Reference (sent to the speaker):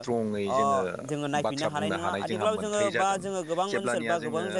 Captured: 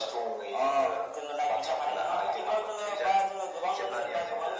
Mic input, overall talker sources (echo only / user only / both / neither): echo only